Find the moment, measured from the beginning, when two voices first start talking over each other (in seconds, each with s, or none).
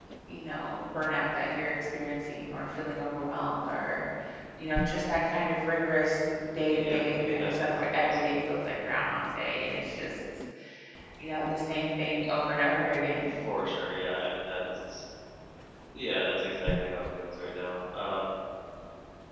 6.7 s